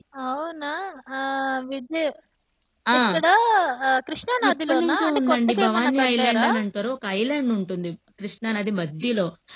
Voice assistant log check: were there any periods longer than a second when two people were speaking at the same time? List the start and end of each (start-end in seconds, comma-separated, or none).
4.5-6.5